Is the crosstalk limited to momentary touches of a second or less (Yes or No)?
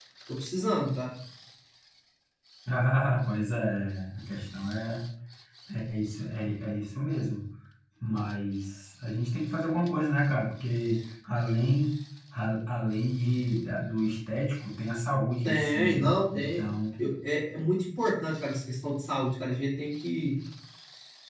No